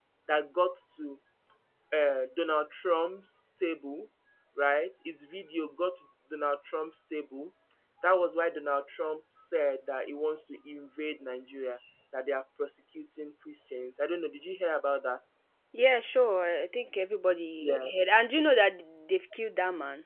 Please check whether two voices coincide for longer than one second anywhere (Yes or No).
No